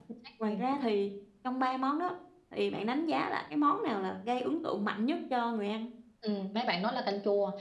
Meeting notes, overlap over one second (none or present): none